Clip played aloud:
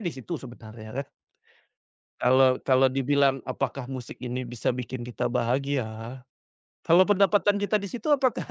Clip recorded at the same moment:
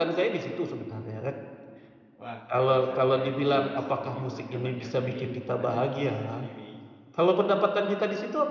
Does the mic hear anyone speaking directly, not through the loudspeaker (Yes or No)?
Yes